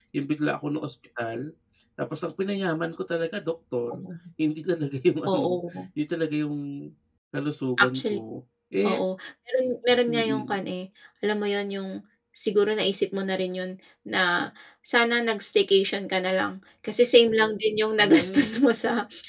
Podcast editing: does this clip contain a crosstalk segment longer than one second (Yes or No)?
No